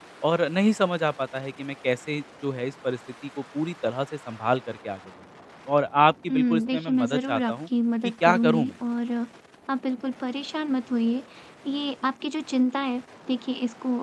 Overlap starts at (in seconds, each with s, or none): 6.3 s